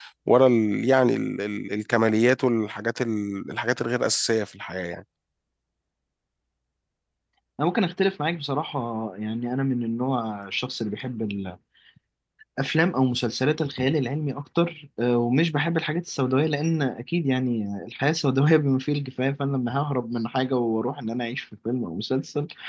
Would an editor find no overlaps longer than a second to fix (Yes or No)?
Yes